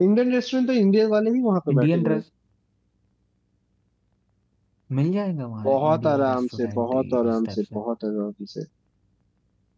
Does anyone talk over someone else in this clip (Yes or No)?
Yes